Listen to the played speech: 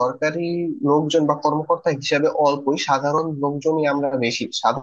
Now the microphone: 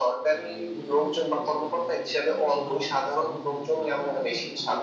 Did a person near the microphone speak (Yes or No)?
Yes